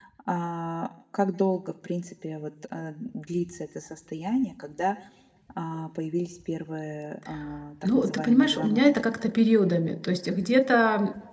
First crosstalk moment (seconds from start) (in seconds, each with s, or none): 7.8 s